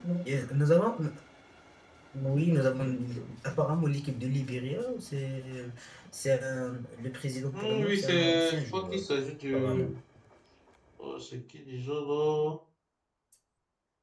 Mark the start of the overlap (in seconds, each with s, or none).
7.5 s